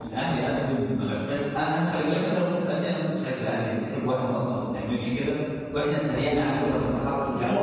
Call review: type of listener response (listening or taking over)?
taking over